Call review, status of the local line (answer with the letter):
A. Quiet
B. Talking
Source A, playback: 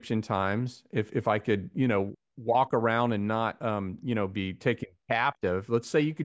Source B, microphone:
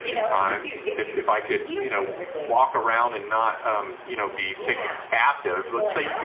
B